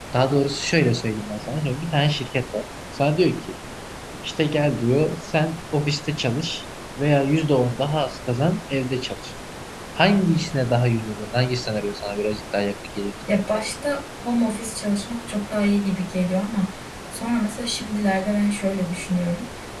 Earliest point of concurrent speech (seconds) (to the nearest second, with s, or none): none